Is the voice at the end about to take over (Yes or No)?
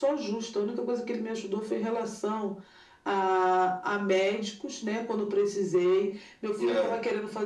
No